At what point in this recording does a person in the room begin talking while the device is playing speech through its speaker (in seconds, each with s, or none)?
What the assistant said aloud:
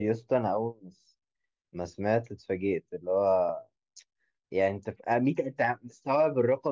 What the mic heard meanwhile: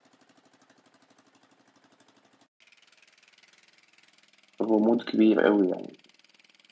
4.6 s